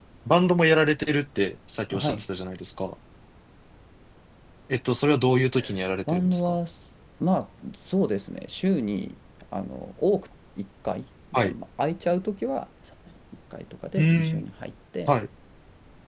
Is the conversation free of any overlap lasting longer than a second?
Yes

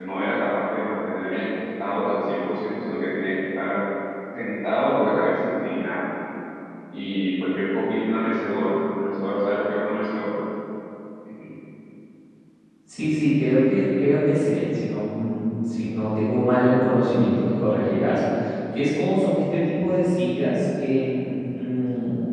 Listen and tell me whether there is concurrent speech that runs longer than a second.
No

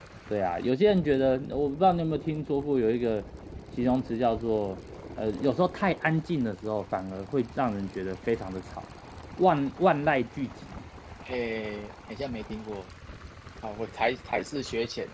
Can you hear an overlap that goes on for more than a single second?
No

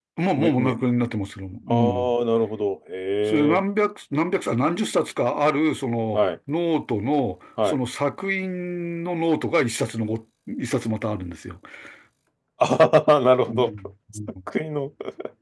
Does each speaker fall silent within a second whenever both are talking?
Yes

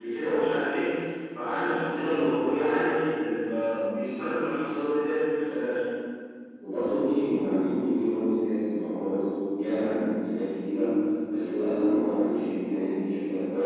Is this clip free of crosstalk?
Yes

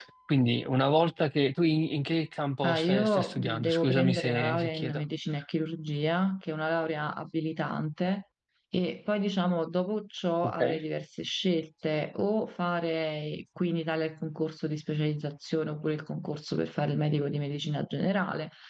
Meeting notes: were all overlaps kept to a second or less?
No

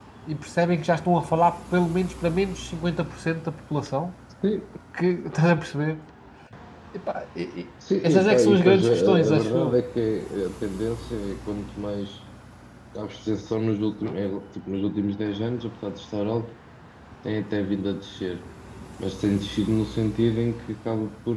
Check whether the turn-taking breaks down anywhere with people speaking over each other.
Yes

